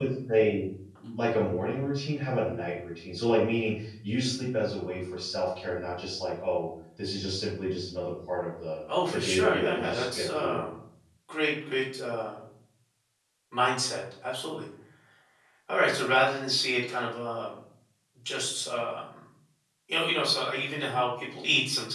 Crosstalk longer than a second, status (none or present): present